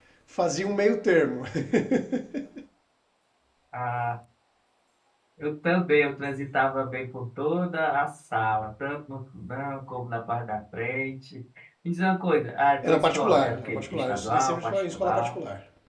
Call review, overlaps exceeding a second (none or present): present